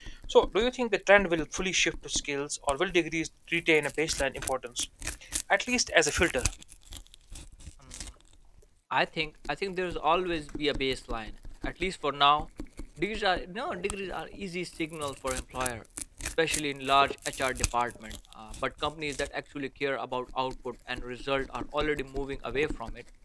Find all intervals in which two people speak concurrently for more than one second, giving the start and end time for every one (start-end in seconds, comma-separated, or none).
none